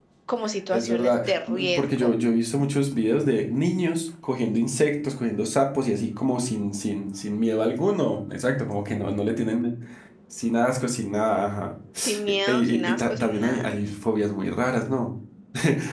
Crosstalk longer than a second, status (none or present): present